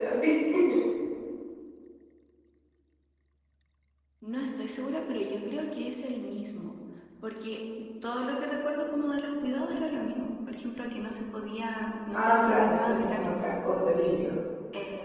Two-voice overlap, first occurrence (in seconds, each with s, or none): 12.1 s